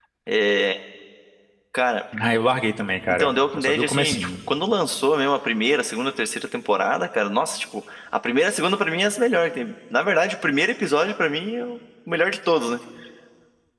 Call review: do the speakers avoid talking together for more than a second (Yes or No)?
No